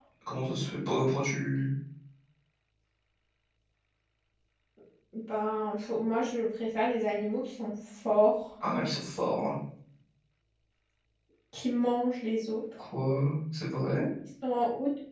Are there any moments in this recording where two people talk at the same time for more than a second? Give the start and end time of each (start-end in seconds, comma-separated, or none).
none